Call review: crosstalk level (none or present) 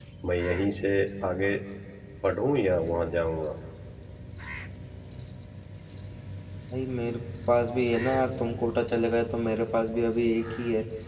none